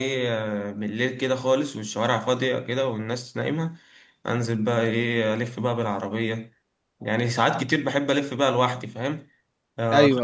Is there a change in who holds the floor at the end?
No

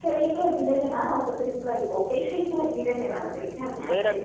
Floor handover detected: Yes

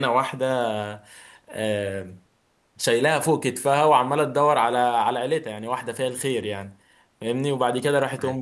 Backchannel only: Yes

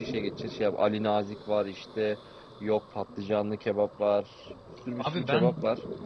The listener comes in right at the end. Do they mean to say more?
Yes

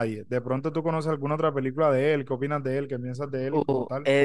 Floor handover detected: Yes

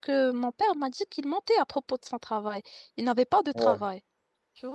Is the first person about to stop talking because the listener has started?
No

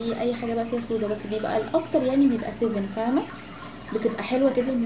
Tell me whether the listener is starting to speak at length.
No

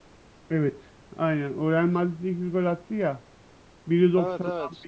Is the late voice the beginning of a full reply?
No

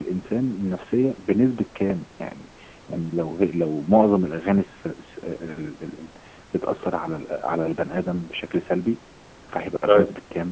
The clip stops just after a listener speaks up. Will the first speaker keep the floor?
Yes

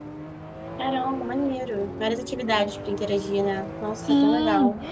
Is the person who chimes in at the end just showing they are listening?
No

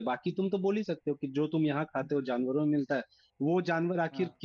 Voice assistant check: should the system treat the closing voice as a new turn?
No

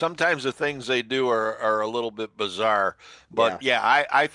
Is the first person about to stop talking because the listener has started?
No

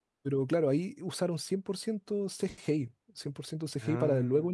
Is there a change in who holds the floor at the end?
No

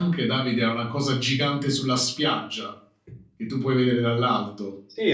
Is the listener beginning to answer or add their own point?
Yes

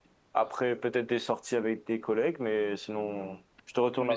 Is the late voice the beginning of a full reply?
Yes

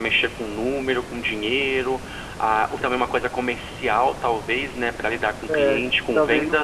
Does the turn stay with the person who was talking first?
No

